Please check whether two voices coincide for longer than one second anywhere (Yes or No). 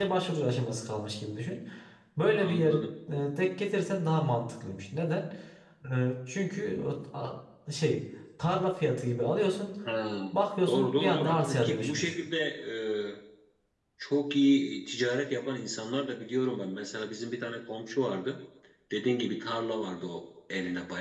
Yes